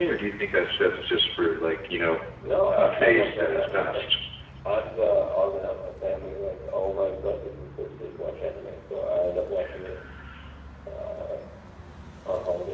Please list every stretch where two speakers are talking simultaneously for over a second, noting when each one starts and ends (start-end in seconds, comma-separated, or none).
2.7-3.9